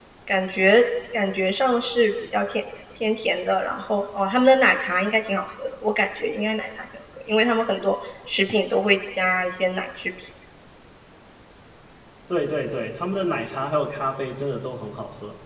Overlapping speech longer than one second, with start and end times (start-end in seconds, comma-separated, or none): none